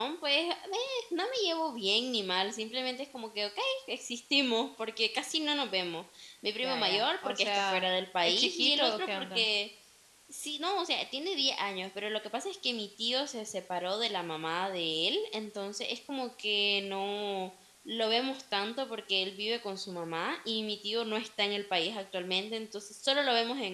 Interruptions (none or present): present